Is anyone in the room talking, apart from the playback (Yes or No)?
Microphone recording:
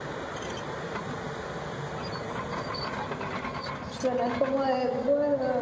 Yes